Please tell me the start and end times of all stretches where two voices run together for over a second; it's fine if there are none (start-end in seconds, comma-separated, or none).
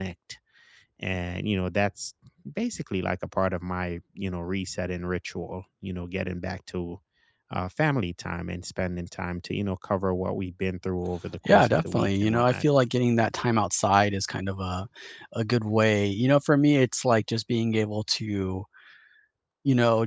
11.4-12.7